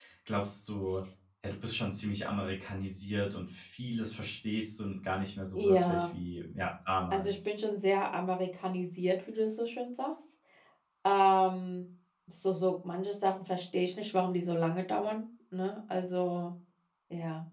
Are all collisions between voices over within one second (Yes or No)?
Yes